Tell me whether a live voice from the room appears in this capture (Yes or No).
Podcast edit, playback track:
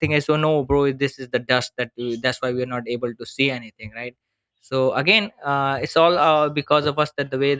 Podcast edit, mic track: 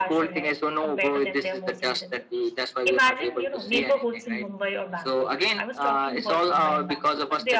Yes